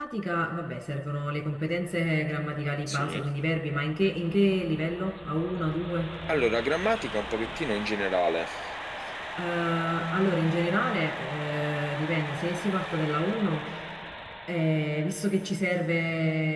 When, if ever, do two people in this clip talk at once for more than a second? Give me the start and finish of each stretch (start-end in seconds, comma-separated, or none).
none